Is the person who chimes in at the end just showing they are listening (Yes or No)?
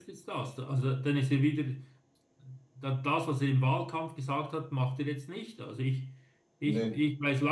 Yes